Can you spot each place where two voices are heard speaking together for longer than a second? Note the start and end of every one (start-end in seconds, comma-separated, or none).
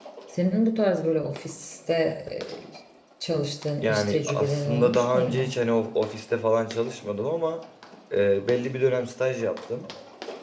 3.8-5.5